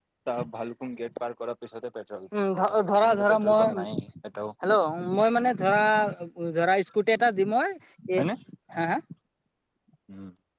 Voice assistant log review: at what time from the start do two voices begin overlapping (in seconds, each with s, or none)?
2.3 s